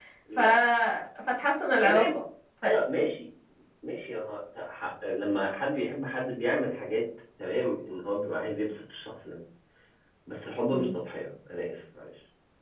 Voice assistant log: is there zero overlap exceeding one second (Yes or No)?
Yes